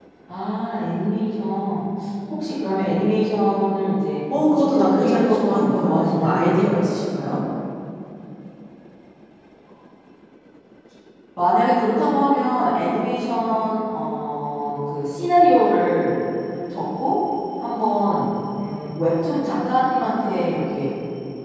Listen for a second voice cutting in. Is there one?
Yes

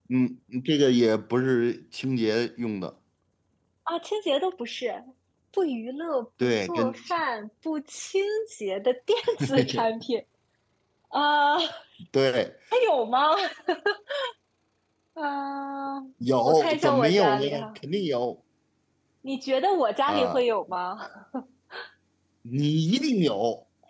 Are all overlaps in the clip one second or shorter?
No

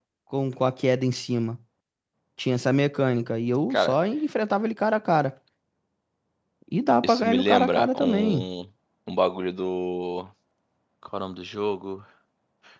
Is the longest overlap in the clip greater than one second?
Yes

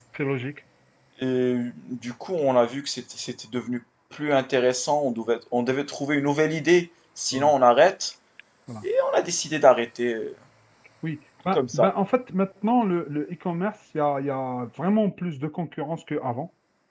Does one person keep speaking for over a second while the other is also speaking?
No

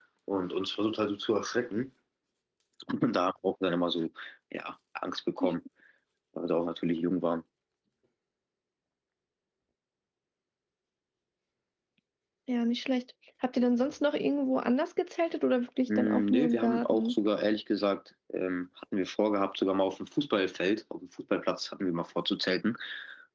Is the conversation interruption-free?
No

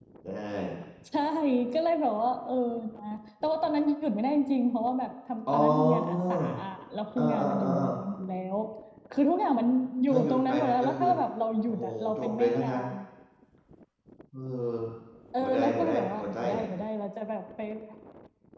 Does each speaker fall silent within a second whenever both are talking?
No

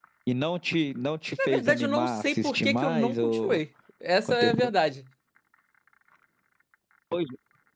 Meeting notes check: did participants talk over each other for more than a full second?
Yes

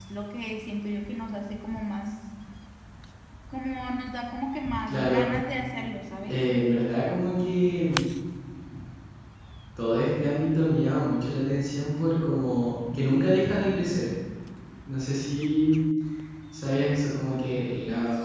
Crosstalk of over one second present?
No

